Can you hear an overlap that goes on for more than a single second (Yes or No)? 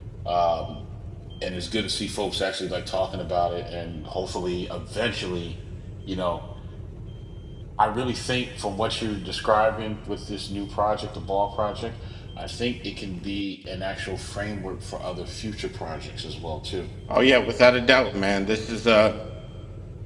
No